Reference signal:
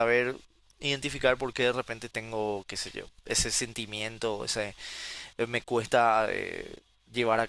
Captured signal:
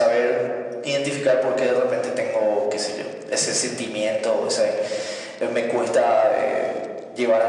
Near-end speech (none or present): none